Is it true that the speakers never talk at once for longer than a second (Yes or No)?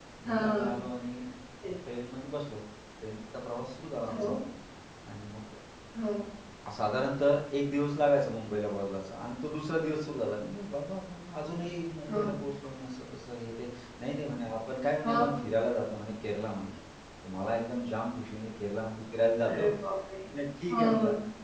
Yes